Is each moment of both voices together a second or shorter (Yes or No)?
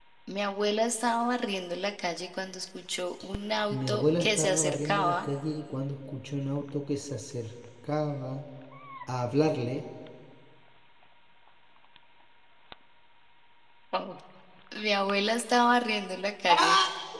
No